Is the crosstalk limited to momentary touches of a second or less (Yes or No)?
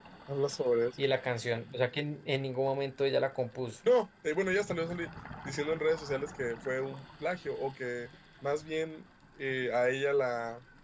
Yes